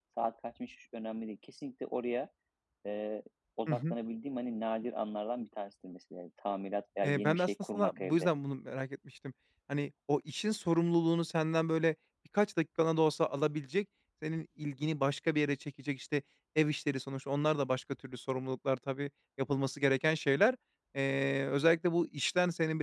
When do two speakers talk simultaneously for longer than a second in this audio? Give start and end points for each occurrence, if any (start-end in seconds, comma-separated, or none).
7.0-8.3